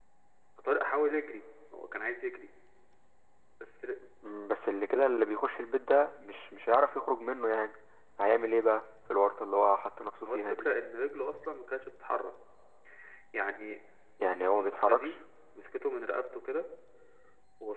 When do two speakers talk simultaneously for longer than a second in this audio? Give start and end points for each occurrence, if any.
none

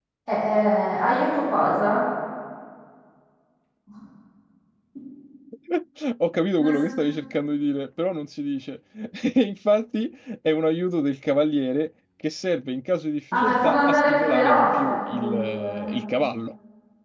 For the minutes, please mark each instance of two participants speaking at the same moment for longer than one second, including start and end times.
13.3-16.0

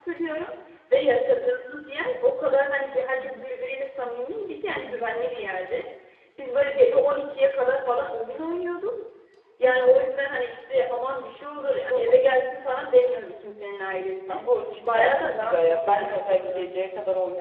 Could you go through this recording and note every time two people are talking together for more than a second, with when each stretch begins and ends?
14.8-16.6

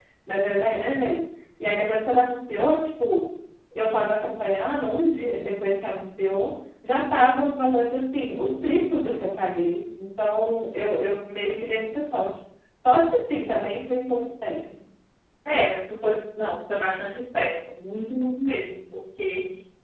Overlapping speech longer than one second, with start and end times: none

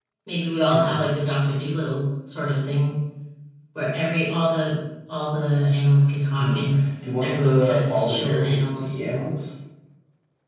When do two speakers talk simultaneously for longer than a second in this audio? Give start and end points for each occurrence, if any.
7.2-9.0

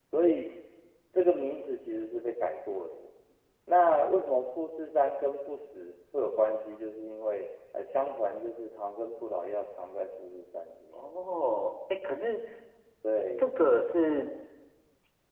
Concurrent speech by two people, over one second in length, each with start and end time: none

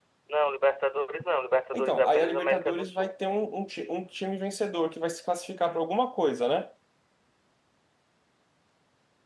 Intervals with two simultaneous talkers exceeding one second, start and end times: 1.7-3.2

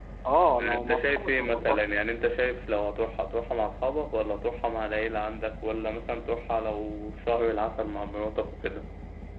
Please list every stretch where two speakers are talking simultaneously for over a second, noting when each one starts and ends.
0.6-1.9

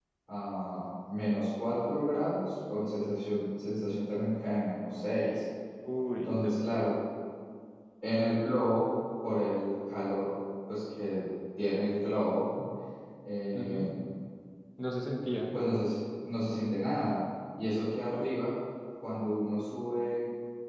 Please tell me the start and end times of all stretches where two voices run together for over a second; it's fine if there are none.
none

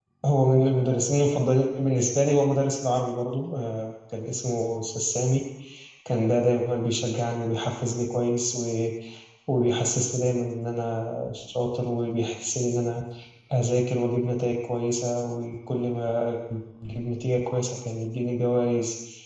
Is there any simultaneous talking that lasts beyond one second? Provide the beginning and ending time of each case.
none

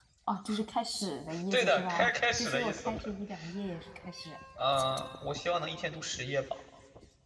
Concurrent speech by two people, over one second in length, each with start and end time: 1.5-2.9

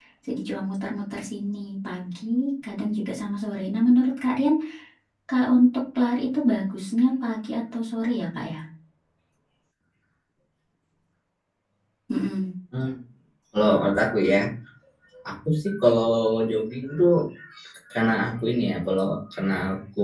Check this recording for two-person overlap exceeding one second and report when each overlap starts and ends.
none

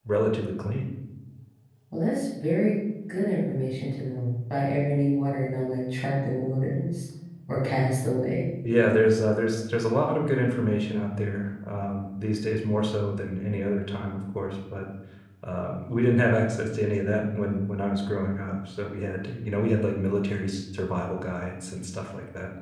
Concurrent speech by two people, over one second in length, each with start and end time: none

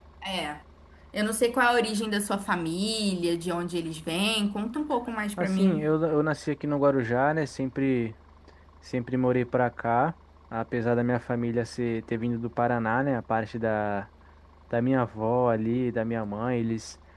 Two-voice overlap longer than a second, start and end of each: none

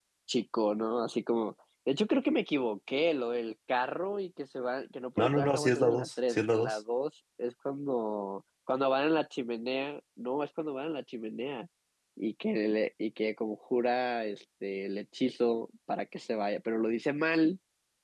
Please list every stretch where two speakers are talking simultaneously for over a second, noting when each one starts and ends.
5.2-6.8

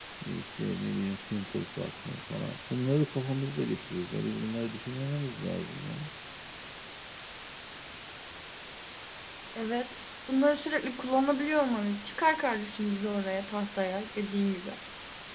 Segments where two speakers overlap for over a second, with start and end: none

